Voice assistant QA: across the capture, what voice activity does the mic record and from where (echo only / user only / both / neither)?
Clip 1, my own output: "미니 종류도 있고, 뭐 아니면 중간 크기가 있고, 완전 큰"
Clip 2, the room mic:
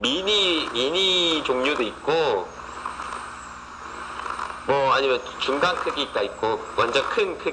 echo only